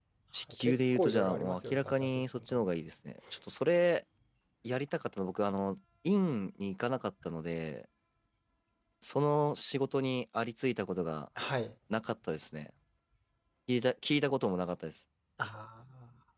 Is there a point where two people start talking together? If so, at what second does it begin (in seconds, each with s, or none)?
0.6 s